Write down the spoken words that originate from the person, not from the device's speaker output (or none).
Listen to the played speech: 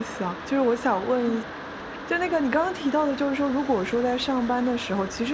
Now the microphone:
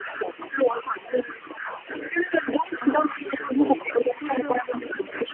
嗯，其实会的，就是